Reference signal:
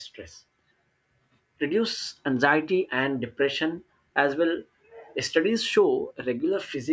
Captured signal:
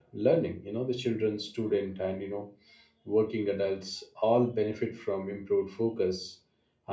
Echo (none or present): none